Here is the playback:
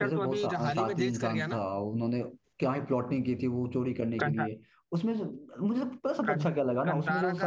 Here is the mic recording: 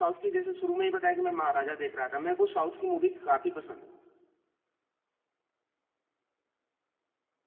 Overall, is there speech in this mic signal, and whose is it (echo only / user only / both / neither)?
user only